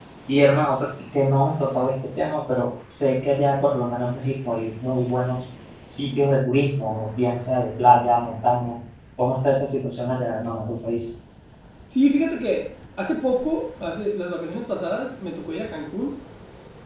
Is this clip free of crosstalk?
Yes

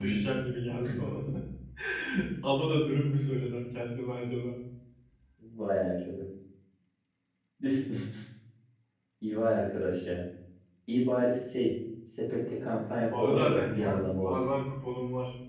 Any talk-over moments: Yes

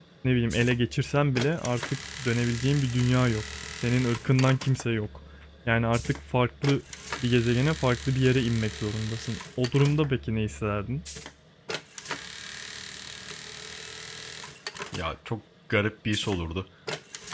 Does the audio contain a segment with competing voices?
No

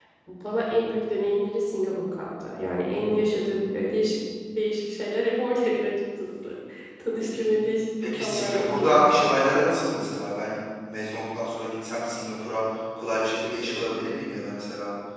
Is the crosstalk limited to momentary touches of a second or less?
No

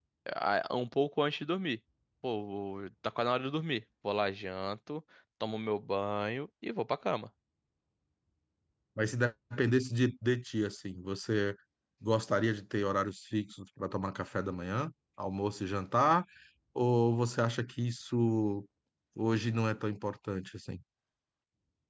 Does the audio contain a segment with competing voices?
No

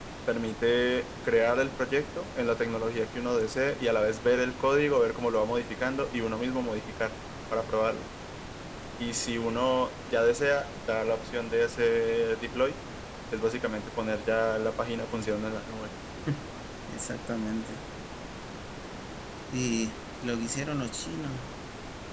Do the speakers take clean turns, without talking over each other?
Yes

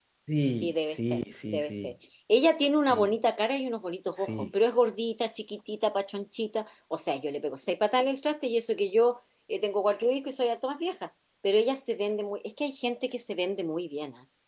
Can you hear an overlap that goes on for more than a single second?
Yes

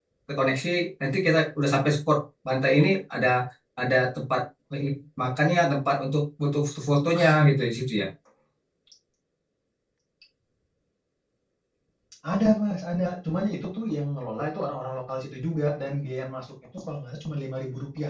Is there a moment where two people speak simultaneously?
No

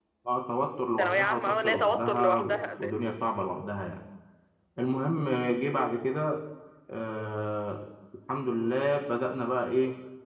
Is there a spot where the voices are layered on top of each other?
Yes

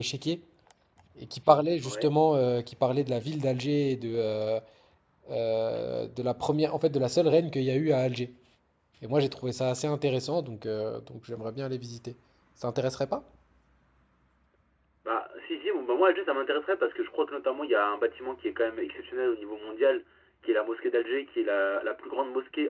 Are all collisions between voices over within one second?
Yes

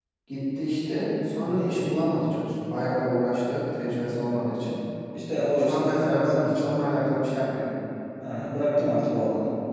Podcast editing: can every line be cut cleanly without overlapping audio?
No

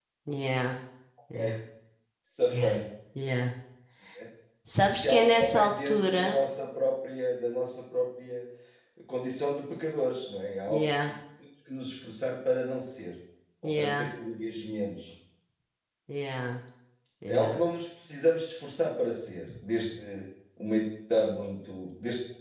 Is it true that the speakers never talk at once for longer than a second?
No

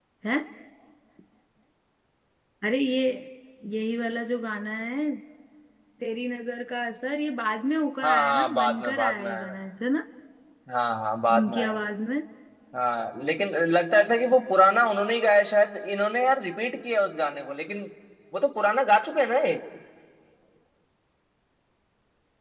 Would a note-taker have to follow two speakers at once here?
Yes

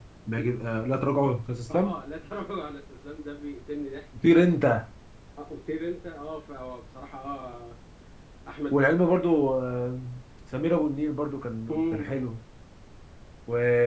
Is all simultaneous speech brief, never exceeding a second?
Yes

